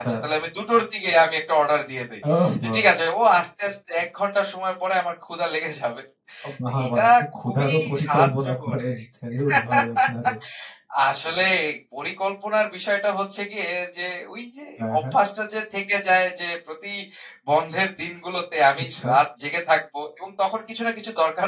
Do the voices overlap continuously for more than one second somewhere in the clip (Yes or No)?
Yes